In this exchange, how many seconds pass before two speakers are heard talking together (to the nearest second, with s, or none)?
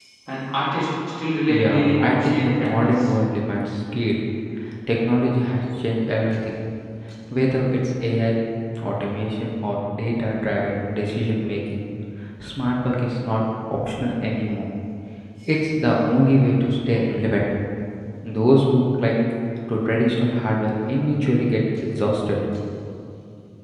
1 s